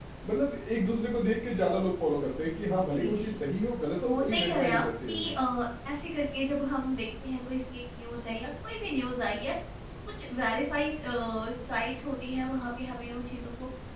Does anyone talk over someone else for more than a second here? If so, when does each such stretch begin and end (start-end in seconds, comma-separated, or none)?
4.0-5.3